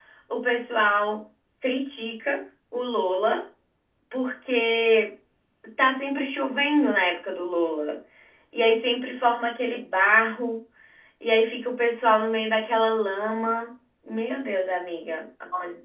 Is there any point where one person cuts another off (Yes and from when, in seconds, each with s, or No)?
No